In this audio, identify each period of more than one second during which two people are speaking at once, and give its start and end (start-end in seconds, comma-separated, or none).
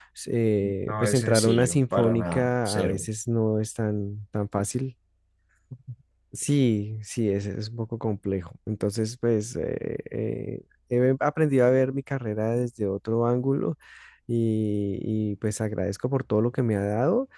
0.9-3.1